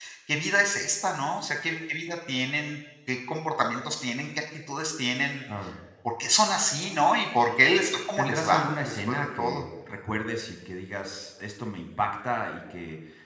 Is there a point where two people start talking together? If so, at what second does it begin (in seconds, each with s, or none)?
8.2 s